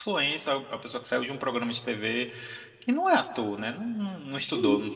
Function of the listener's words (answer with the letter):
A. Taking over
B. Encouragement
B